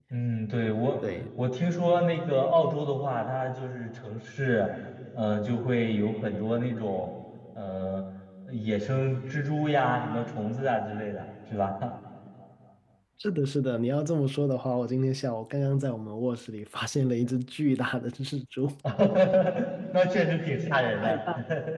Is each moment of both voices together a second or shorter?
Yes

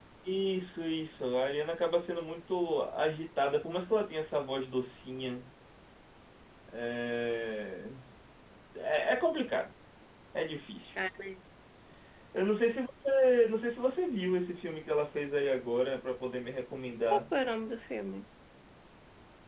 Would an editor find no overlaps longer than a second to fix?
Yes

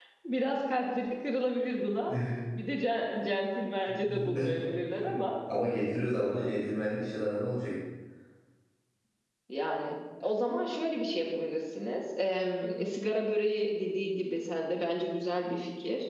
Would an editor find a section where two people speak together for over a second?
No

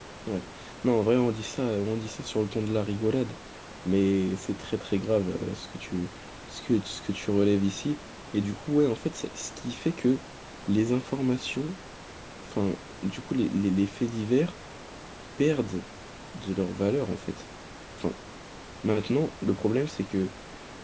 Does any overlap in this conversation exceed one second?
No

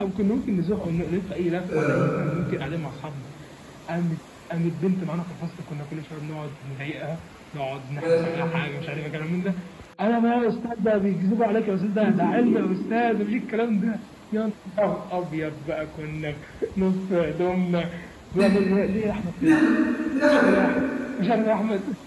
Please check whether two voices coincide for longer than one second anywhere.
No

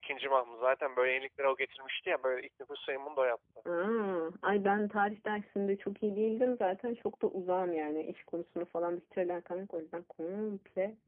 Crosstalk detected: No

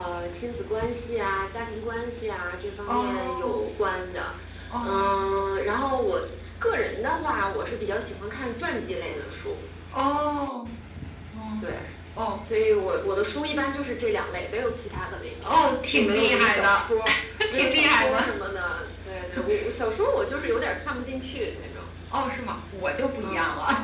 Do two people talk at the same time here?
Yes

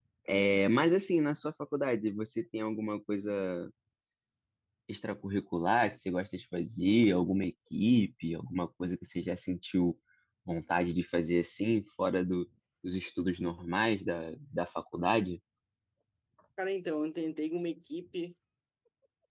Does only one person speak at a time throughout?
Yes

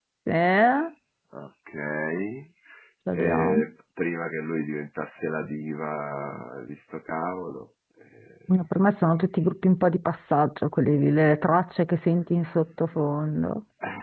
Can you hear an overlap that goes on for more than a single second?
No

